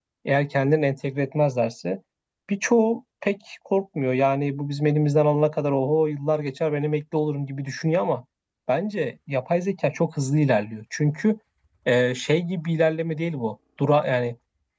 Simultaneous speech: No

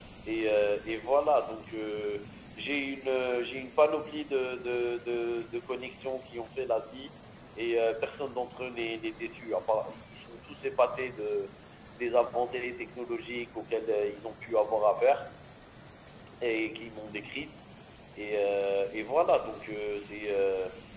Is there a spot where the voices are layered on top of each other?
No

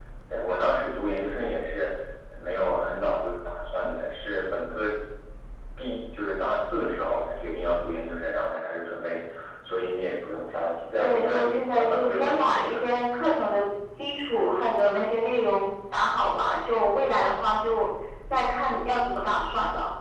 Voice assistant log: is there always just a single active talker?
No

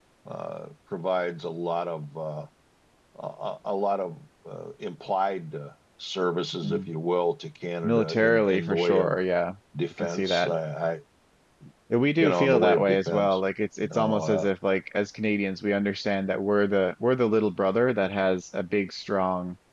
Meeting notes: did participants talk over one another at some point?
Yes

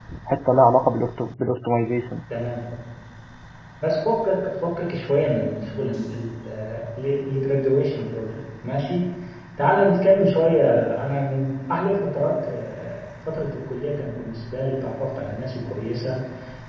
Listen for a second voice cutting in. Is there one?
No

